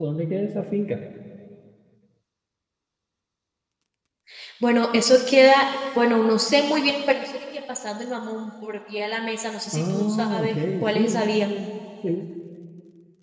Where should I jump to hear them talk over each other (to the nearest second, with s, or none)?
10 s